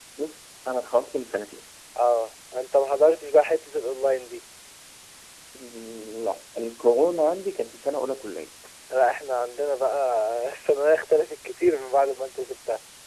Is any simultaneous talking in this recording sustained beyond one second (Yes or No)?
No